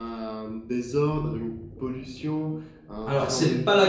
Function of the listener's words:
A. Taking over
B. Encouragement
A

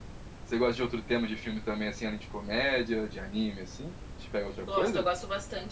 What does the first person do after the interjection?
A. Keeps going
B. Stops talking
B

